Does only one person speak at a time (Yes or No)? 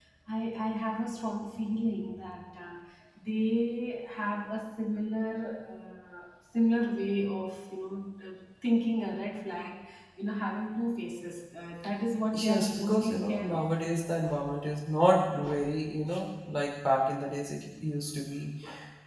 No